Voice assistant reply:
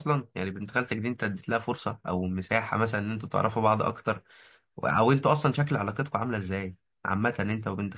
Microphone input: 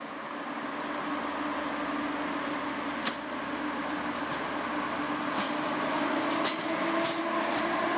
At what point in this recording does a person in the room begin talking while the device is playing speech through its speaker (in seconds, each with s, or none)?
none